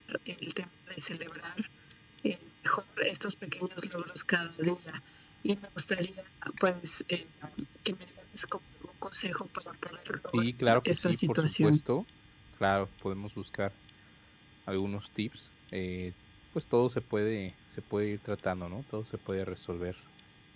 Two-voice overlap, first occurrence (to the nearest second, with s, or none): 10 s